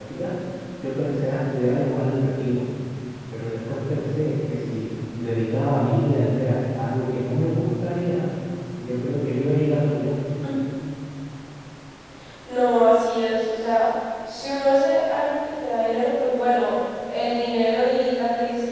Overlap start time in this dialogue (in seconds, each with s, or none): none